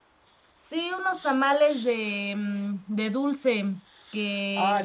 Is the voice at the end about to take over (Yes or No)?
Yes